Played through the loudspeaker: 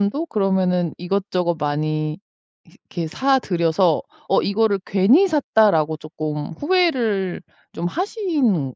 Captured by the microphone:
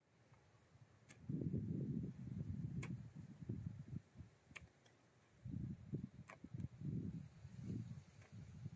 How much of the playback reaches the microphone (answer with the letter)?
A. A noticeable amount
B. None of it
B